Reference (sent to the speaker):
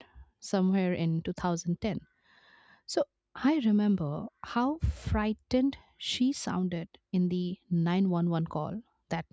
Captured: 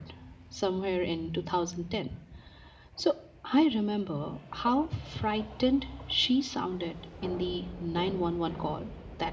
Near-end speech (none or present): none